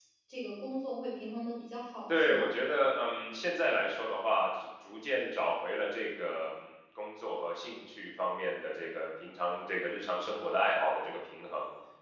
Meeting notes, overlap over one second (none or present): none